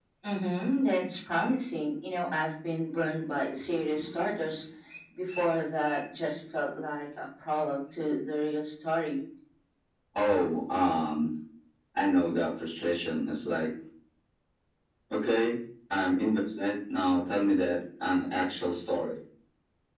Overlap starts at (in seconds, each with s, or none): none